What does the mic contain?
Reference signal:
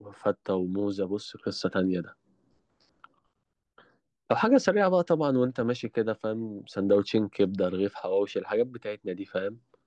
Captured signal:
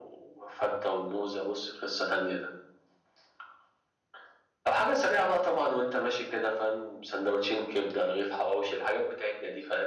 echo only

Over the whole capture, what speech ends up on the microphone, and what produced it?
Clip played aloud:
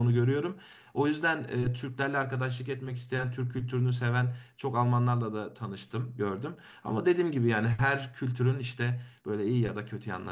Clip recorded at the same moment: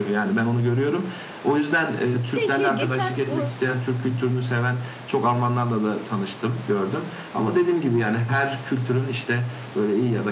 both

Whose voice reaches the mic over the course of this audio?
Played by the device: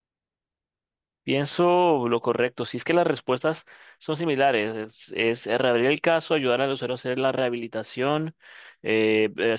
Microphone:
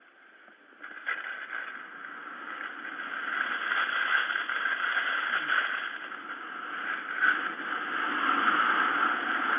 neither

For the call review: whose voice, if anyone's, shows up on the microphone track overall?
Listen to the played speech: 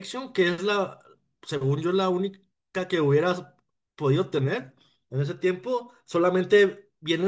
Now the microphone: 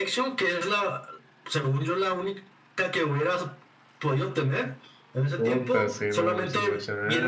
both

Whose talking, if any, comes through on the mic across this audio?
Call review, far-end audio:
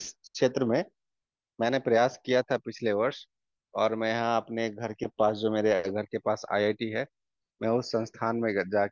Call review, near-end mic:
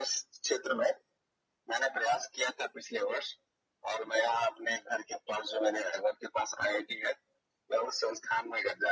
echo only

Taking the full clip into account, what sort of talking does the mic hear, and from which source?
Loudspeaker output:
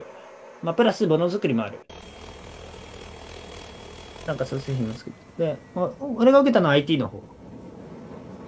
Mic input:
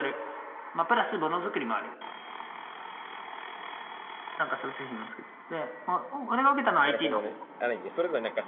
both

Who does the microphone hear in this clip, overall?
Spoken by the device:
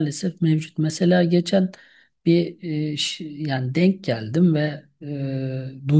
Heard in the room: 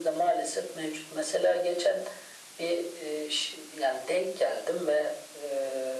echo only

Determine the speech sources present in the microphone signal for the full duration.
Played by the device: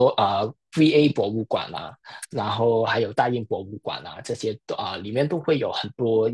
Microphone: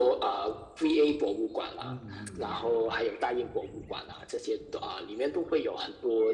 both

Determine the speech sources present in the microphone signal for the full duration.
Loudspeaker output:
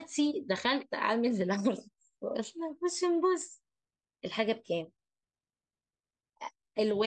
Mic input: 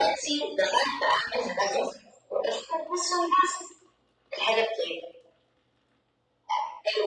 echo only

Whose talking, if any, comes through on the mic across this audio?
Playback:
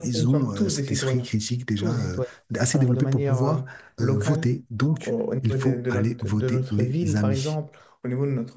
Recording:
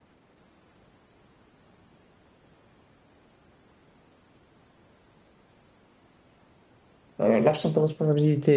user only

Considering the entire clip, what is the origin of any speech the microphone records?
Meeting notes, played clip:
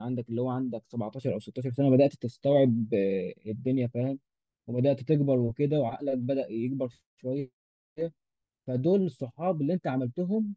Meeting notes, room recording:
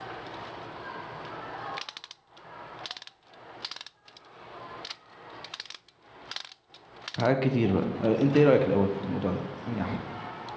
user only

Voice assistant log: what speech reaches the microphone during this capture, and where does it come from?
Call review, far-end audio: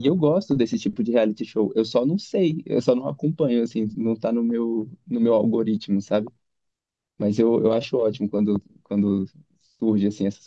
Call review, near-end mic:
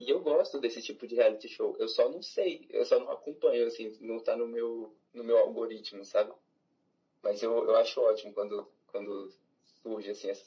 echo only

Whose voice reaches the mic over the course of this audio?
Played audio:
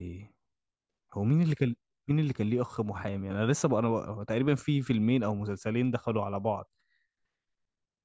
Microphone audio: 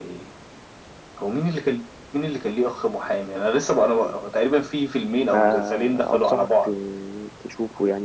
both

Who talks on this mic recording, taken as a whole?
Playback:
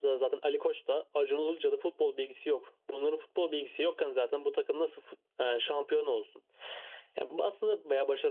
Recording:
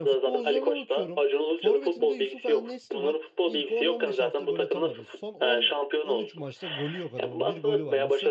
both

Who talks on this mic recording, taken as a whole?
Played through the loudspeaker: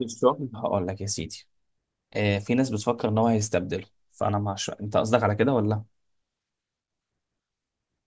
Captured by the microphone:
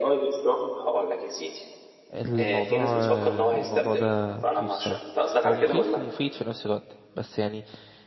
both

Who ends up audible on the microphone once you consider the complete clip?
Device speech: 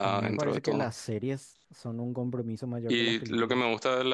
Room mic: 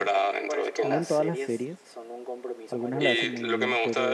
both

